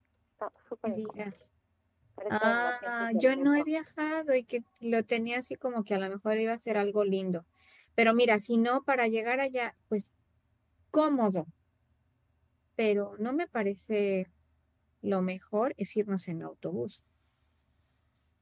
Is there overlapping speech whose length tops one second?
Yes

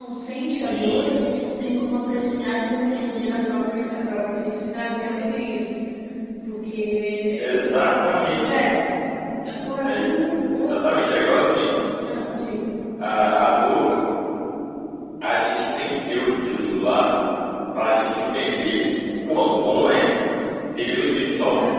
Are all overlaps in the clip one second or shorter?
Yes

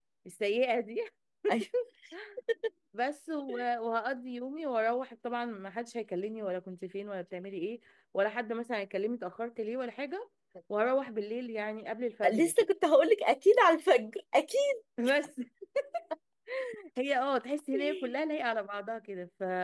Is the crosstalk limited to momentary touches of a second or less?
Yes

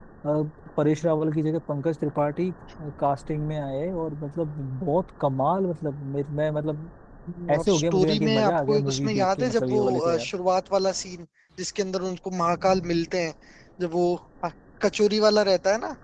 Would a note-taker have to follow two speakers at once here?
Yes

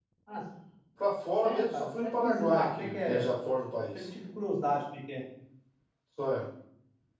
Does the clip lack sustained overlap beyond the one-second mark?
No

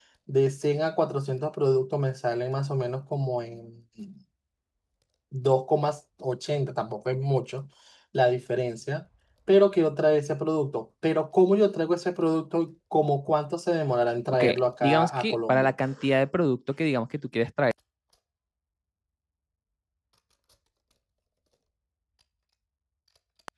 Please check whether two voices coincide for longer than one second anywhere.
Yes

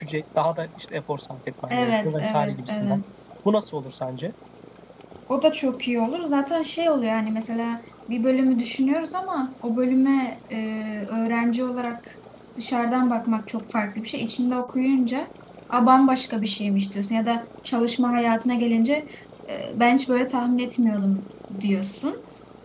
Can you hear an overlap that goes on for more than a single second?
Yes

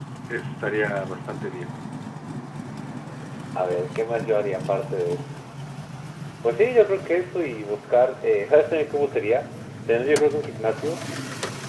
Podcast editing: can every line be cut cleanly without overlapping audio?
Yes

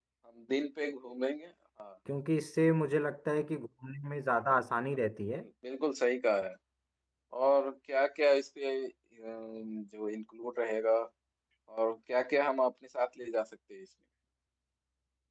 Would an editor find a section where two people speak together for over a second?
No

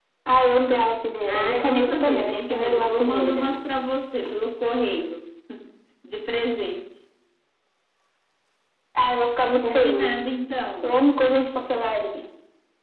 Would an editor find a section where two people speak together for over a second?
Yes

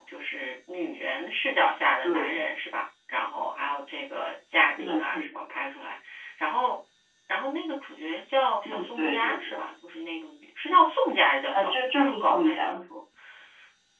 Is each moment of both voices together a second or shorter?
No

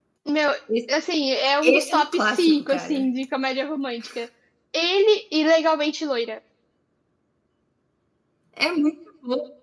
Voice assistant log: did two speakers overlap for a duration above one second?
Yes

